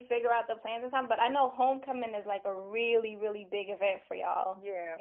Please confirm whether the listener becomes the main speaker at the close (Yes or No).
Yes